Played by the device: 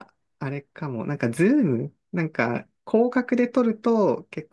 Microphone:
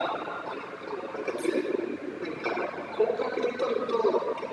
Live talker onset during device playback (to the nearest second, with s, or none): none